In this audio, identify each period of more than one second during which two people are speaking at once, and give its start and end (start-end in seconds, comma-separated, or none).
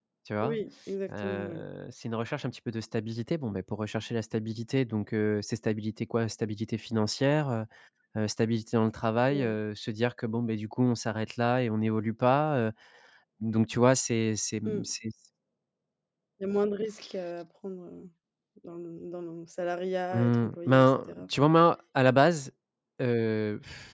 20.1-21.5